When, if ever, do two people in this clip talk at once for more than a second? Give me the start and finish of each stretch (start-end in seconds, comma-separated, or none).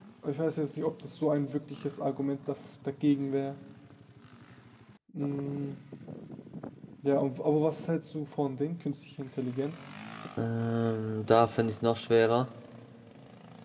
none